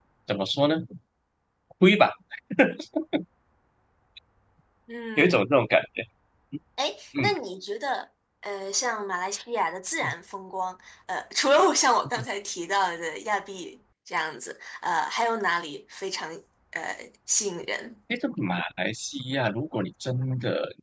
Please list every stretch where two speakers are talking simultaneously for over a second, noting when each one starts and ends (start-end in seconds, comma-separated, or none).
none